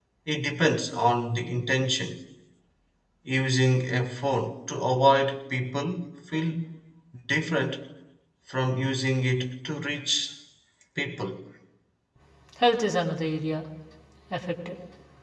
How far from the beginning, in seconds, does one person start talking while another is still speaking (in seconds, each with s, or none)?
none